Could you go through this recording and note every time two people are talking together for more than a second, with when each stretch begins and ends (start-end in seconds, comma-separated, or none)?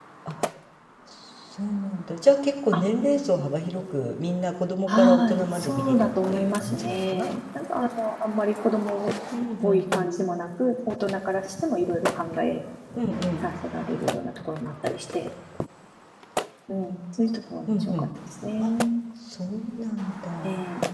4.9-7.3